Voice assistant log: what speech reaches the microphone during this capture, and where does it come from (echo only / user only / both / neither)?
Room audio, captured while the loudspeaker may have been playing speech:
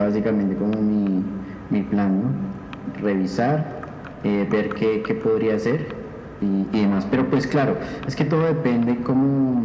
echo only